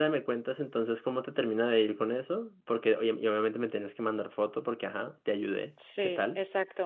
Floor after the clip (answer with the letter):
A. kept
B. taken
B